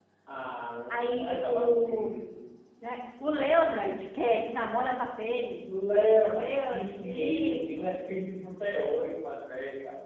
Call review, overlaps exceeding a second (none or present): present